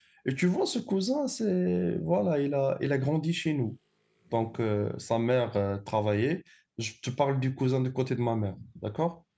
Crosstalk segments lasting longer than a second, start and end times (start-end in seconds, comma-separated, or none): none